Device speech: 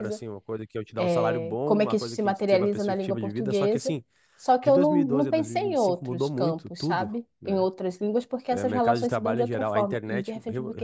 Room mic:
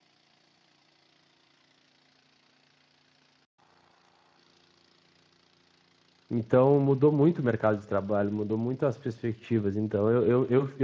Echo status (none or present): none